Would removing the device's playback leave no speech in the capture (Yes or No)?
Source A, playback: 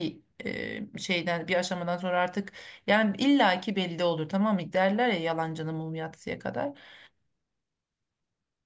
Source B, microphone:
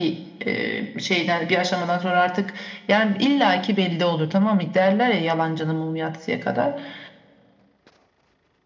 Yes